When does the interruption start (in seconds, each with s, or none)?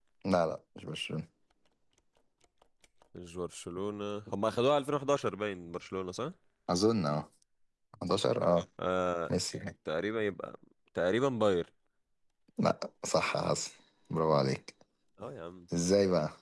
none